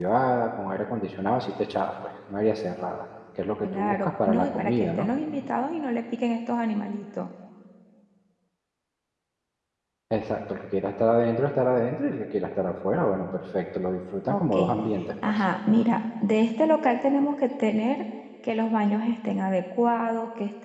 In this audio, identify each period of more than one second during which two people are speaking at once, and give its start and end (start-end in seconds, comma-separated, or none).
3.6-5.1